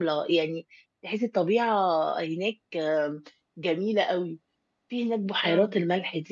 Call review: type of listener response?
listening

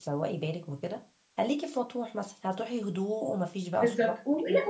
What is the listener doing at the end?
taking over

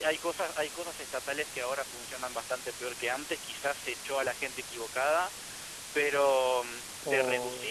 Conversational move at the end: listening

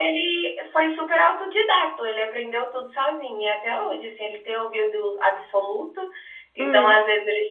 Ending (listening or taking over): listening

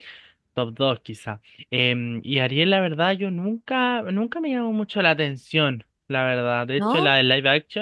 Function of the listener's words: listening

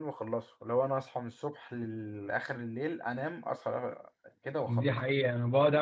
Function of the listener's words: taking over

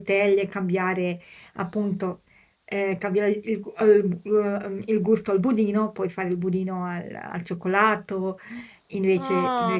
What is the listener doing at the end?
taking over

